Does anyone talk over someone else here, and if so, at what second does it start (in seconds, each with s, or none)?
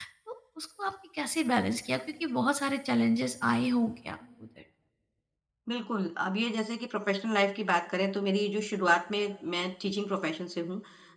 none